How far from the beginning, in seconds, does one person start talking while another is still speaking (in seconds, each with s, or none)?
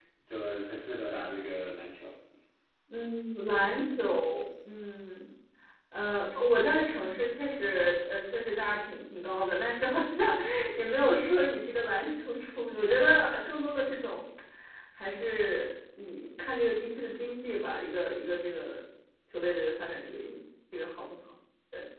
none